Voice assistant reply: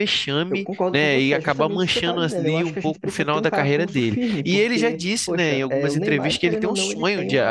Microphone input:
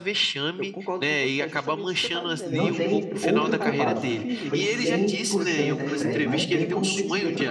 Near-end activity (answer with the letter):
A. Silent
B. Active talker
B